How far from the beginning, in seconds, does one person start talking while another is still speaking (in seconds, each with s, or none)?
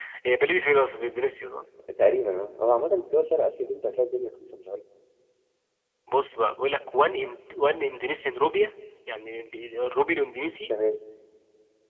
none